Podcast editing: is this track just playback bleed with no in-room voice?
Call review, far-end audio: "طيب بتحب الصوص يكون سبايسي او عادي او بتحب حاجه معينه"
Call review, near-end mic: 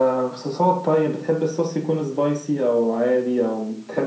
Yes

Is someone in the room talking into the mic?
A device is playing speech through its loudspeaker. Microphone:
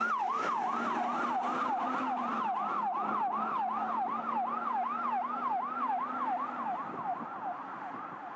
No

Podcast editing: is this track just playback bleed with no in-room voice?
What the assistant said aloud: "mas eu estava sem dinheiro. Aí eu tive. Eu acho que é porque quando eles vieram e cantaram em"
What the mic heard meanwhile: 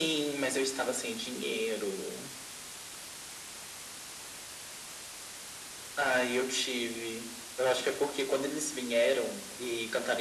Yes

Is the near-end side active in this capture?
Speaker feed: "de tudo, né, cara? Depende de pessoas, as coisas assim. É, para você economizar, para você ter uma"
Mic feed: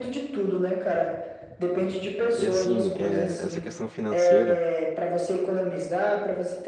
Yes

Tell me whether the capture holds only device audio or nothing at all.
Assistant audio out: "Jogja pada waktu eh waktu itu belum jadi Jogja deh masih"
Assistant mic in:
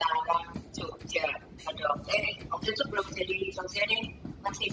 Yes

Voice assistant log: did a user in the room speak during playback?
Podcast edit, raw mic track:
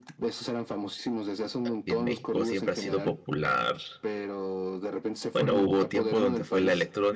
Yes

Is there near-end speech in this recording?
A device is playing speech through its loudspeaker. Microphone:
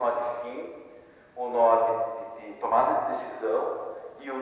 No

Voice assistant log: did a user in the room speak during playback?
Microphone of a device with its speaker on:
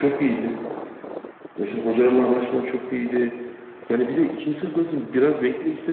No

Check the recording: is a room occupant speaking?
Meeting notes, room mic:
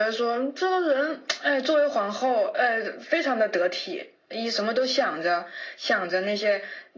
No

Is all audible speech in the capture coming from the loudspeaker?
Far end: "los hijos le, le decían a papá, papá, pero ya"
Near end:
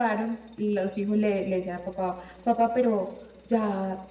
Yes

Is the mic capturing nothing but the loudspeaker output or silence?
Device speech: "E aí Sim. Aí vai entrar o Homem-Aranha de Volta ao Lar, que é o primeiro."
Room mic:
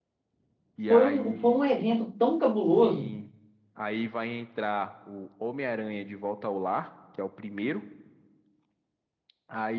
No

